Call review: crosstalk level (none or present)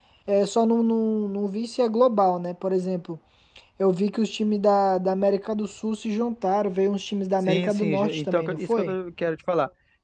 present